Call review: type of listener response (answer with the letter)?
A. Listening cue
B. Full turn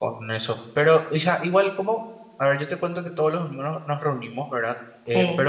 A